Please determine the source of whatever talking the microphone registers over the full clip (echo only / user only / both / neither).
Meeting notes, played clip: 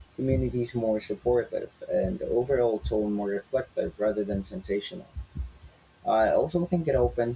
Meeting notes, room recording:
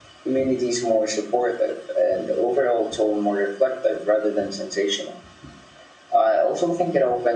echo only